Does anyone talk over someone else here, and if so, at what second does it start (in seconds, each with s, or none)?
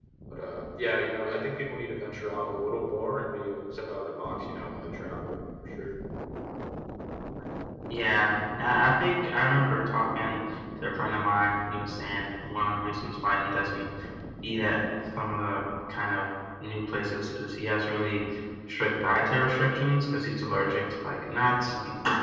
none